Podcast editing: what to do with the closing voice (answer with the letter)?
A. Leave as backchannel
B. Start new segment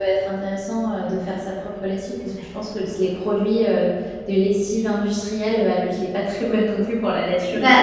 B